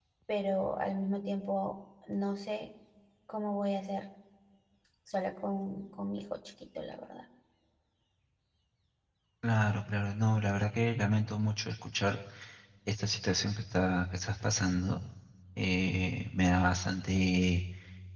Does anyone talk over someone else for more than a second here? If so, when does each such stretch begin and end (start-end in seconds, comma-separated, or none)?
none